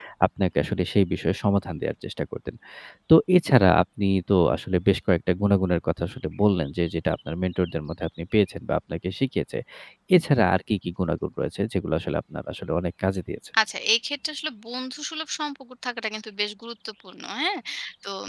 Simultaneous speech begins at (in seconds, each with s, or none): none